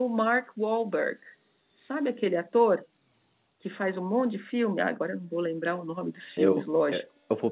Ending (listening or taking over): taking over